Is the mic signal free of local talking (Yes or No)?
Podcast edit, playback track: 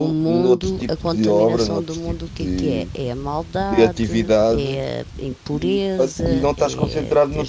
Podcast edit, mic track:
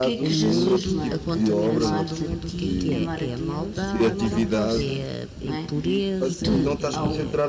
No